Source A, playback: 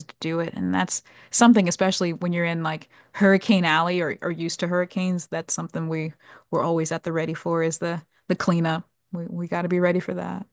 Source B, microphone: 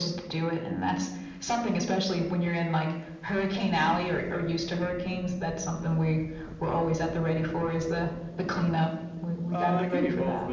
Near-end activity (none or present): present